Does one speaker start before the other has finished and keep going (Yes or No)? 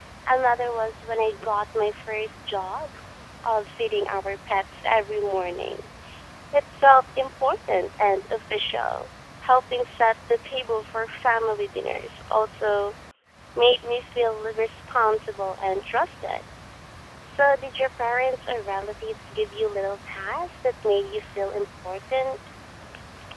No